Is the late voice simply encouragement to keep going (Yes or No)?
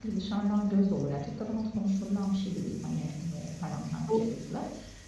Yes